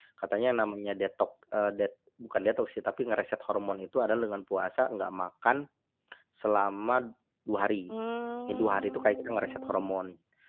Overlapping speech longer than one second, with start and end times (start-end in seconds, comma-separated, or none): 8.5-9.9